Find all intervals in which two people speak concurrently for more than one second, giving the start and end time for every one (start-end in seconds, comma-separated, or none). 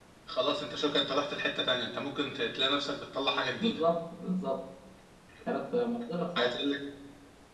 none